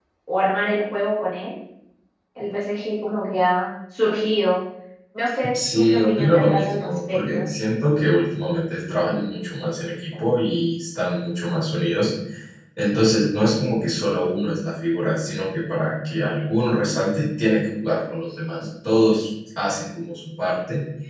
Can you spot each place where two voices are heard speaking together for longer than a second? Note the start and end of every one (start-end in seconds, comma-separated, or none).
5.7-7.4